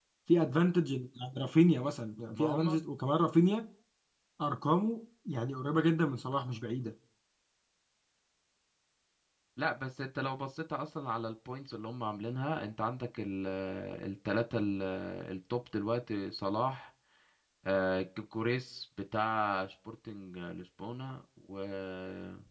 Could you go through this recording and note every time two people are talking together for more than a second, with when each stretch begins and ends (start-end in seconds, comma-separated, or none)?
none